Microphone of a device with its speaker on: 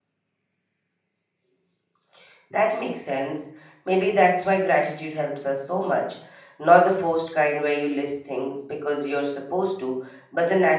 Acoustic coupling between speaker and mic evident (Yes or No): No